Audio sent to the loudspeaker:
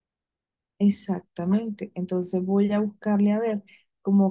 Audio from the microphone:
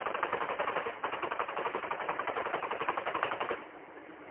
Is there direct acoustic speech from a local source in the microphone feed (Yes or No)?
No